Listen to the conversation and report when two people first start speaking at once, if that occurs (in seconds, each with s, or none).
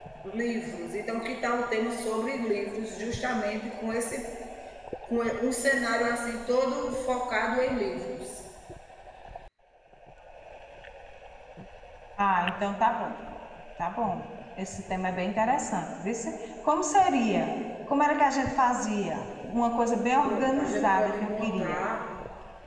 20.3 s